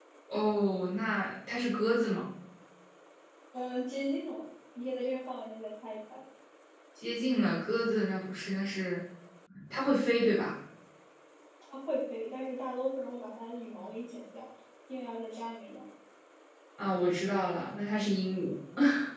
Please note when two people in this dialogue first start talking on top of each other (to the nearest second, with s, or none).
none